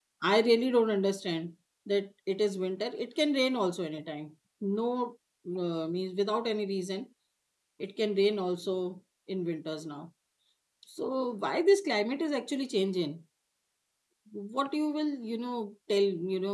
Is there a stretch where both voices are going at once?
No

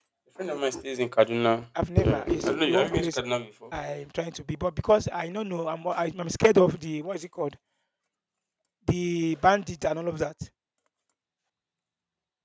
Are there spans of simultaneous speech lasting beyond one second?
Yes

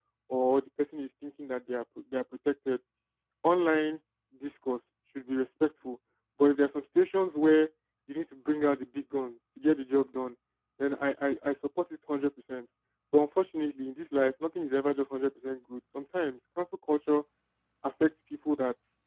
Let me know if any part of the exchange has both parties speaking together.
No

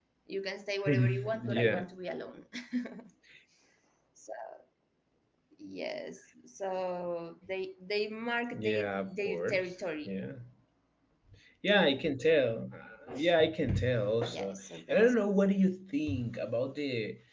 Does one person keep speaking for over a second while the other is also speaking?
Yes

